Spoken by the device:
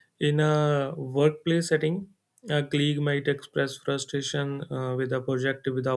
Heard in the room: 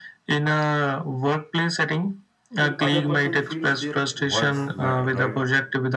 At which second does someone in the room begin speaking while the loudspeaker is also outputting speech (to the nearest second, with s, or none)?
3 s